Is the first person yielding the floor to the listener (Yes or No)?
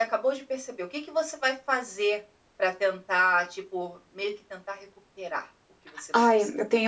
Yes